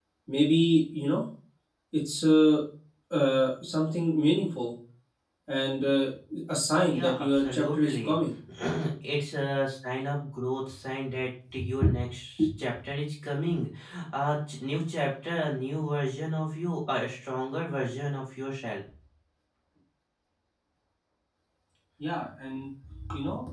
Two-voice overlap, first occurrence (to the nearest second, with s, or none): 7 s